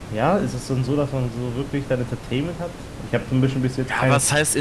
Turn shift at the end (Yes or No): Yes